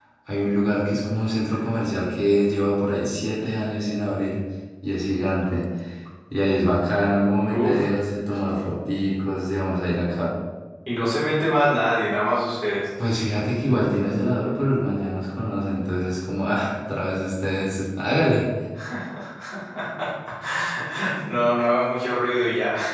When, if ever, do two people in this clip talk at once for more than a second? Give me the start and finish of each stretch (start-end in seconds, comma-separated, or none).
none